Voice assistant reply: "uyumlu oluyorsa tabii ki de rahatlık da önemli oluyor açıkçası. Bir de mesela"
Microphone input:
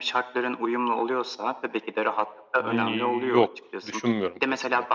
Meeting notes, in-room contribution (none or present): present